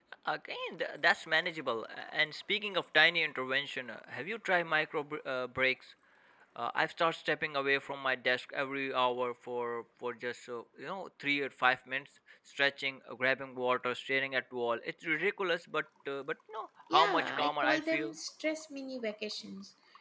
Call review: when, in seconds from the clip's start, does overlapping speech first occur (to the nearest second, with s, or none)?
17 s